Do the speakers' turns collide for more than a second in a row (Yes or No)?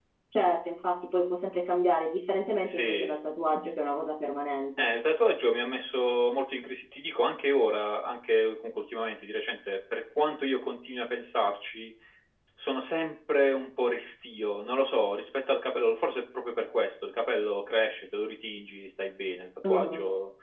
No